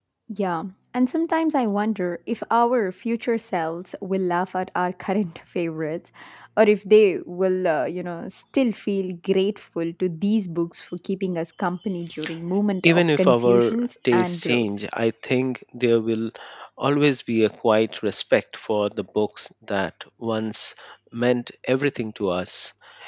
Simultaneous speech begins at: 12.8 s

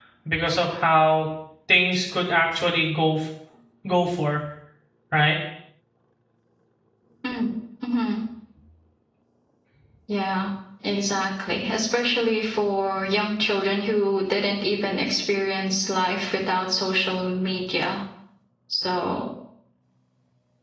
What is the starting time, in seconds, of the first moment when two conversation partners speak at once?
none

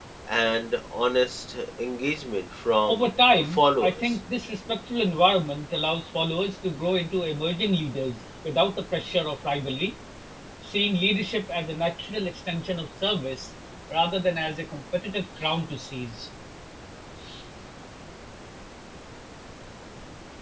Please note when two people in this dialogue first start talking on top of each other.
2.9 s

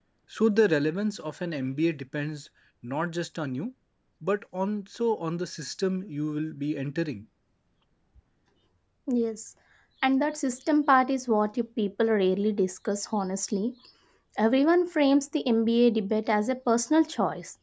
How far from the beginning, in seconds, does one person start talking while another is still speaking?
none

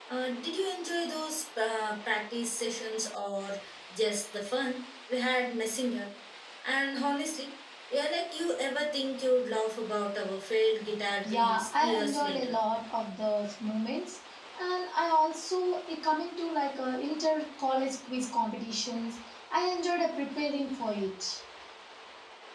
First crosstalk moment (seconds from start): 11.2 s

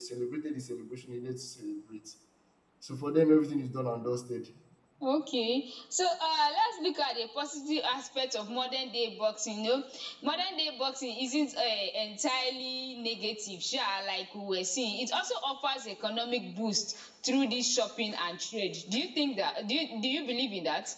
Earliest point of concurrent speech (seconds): none

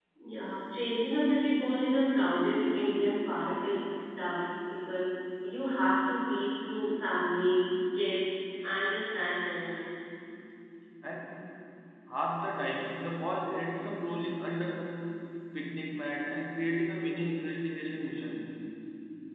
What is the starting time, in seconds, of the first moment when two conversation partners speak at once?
none

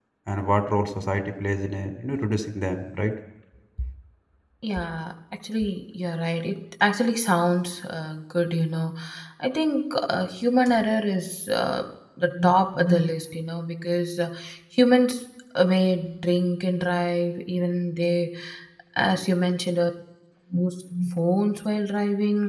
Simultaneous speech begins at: none

